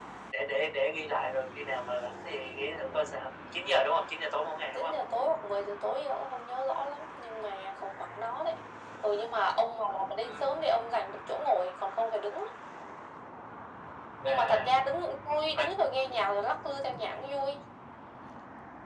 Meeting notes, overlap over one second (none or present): none